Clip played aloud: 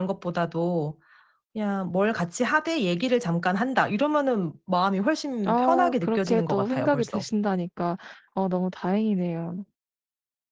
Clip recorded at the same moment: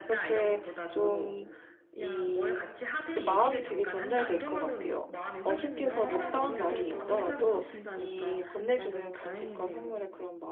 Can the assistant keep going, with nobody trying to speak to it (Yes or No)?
No